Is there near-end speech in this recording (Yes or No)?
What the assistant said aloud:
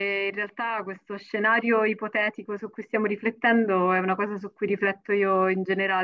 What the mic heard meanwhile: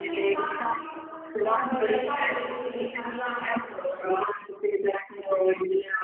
Yes